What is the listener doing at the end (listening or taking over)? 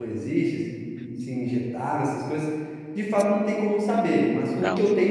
listening